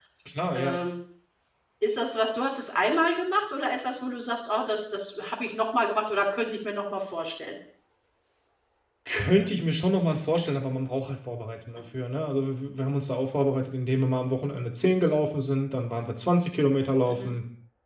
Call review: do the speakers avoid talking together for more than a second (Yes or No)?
Yes